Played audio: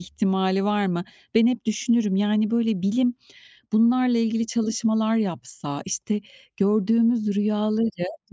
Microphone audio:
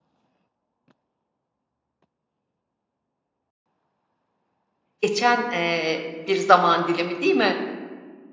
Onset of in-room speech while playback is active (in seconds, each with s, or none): 5.0 s